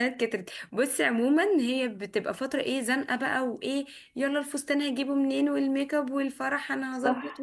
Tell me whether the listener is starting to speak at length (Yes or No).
No